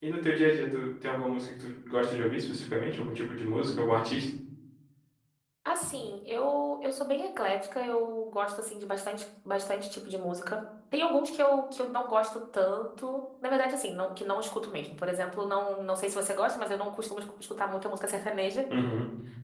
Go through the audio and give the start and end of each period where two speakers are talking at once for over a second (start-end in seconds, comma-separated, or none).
none